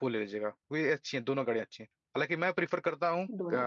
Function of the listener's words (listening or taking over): listening